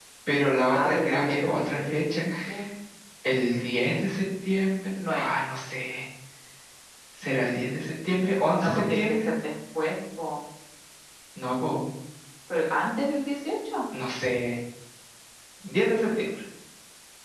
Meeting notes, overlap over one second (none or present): present